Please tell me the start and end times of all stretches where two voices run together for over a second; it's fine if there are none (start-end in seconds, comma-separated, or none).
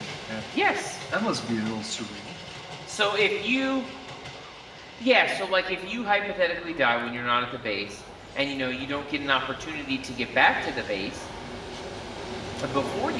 none